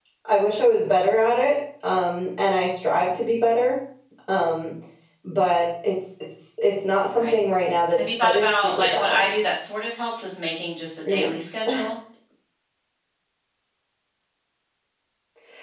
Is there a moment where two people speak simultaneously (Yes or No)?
Yes